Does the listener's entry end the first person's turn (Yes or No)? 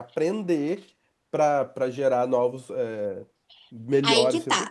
Yes